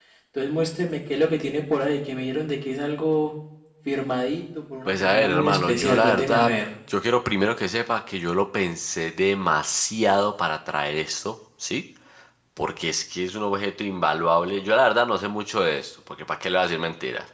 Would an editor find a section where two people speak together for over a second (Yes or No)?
Yes